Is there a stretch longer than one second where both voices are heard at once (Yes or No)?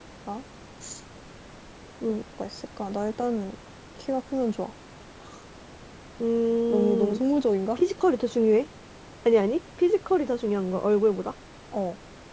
No